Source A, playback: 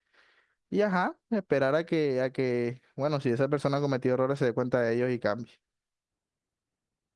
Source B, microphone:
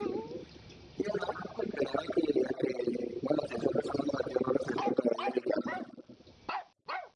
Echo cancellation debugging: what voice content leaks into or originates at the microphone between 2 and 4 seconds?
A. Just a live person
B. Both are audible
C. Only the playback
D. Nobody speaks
C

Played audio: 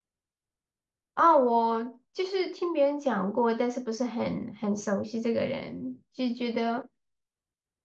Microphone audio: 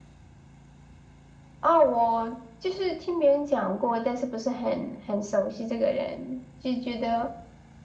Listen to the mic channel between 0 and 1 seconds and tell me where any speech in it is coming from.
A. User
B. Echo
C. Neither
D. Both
C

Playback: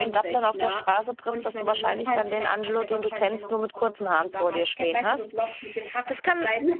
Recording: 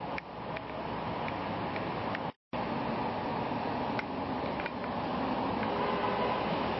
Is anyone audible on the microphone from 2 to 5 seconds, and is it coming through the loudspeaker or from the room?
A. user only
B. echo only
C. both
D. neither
D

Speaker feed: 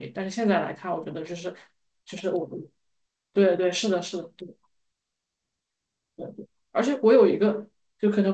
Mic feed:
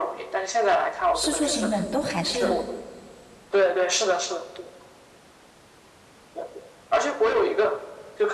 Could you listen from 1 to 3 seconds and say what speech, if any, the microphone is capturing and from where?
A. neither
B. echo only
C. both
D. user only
C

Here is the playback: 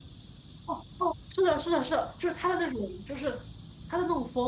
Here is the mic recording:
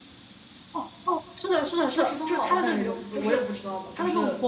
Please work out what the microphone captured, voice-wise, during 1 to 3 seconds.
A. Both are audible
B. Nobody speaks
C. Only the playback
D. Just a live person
A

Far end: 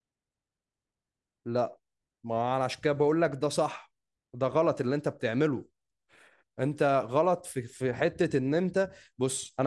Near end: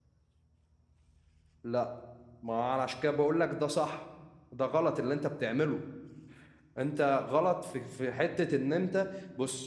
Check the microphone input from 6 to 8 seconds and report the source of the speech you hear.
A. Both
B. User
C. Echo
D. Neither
C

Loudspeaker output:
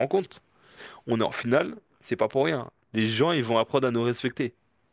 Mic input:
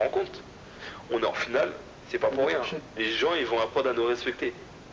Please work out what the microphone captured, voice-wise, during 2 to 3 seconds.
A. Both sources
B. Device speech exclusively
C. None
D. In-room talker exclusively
A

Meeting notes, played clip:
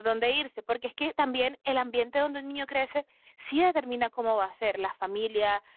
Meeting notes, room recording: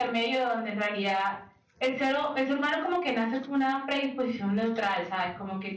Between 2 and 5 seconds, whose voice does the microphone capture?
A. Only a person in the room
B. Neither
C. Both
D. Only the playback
A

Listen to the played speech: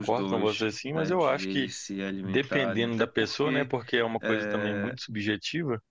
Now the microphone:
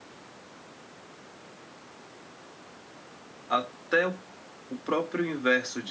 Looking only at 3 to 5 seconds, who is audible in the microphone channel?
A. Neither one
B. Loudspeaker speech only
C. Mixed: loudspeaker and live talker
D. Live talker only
D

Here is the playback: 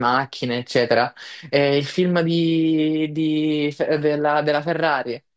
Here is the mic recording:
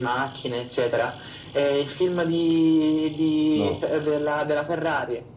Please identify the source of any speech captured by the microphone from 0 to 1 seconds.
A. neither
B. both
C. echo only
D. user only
C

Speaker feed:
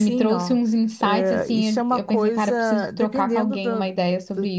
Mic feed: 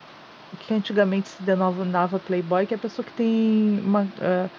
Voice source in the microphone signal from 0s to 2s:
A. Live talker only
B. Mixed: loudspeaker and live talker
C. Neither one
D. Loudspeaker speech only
A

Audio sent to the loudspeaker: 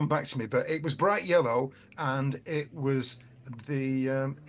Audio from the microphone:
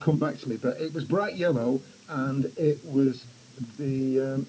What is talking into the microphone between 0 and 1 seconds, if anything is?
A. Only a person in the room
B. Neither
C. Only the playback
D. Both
C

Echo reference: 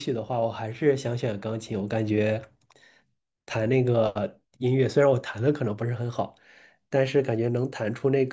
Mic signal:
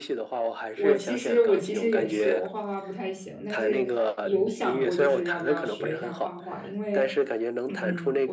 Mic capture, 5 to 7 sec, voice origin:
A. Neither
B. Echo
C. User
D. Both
D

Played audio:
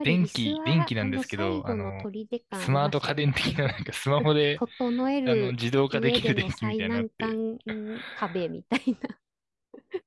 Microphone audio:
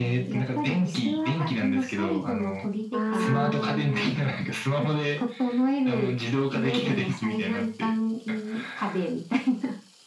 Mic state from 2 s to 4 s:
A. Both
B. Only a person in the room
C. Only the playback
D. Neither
A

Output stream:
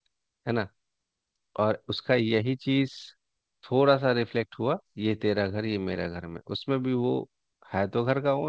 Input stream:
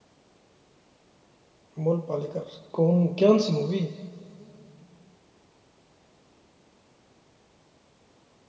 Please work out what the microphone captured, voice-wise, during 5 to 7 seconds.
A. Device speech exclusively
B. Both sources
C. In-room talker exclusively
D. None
D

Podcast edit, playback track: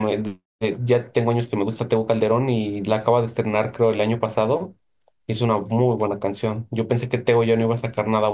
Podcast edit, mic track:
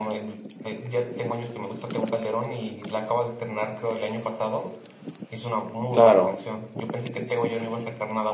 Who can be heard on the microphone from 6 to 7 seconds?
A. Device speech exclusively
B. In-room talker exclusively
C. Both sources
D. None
C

